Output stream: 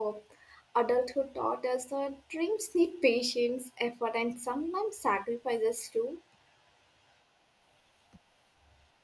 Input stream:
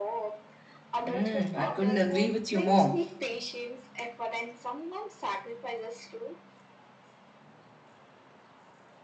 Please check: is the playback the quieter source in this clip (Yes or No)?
Yes